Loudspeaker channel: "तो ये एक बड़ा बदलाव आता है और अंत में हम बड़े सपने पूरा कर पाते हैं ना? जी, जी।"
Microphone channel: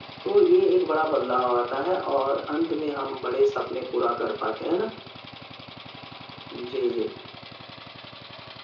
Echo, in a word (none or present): present